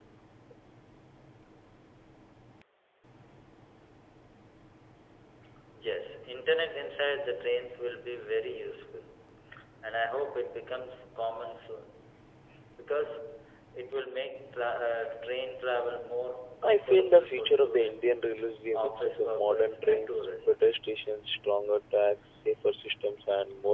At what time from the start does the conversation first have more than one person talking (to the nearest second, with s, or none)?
17 s